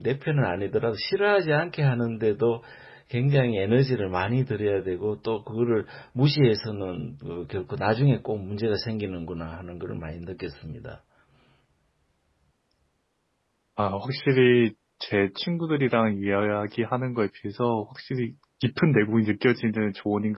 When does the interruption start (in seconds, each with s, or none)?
none